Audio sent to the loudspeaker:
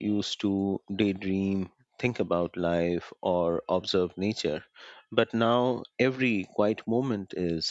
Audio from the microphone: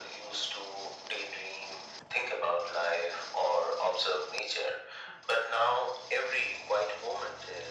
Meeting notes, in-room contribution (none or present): none